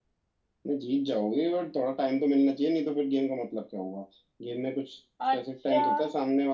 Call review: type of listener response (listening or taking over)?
listening